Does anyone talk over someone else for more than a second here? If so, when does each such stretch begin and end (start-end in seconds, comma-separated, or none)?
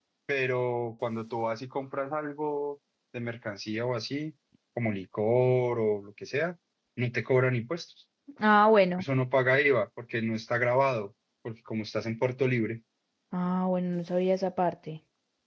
none